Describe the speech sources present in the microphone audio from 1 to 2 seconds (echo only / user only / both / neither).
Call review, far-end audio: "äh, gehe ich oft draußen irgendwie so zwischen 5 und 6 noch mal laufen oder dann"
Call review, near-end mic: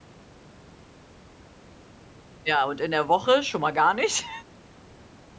neither